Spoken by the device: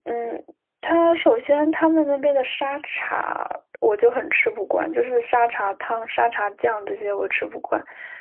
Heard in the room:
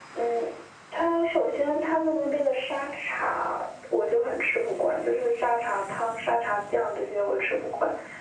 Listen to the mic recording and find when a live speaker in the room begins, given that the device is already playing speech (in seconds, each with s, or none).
none